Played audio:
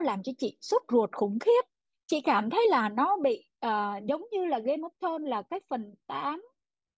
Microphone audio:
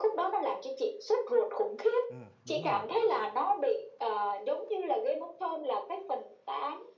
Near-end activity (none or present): present